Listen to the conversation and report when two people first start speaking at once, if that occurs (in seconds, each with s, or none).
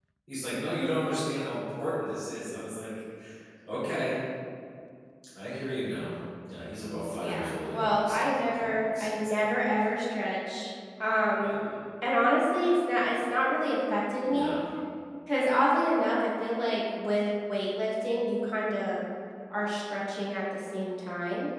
7.2 s